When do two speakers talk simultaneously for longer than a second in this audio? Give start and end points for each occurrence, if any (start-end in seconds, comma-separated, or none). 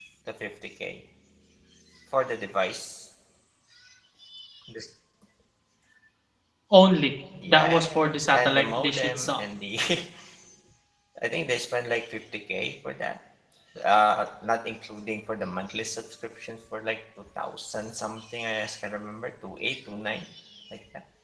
7.5-9.4